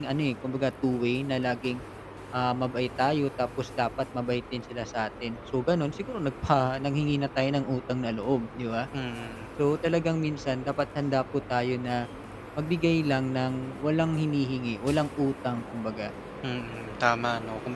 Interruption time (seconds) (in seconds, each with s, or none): none